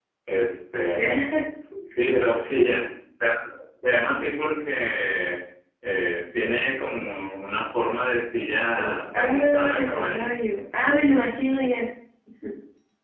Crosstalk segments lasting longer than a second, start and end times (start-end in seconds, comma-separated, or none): 8.8-10.3